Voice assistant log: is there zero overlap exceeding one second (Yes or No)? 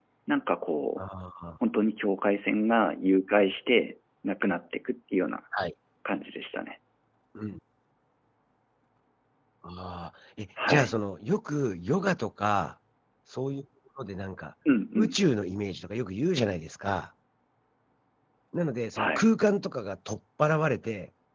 Yes